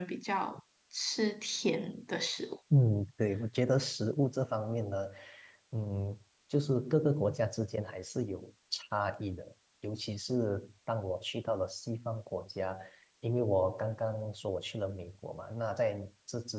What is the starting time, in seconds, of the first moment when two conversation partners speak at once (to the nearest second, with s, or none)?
none